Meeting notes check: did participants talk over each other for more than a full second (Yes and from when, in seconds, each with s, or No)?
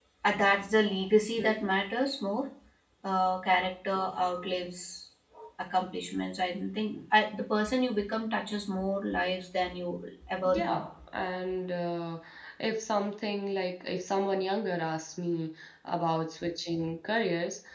No